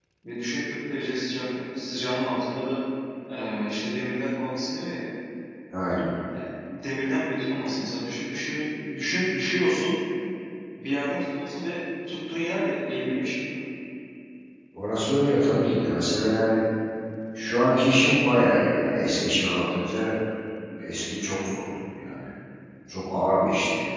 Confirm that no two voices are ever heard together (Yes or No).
Yes